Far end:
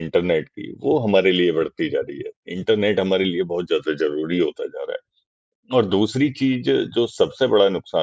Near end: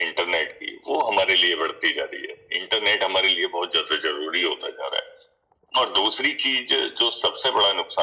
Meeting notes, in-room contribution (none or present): none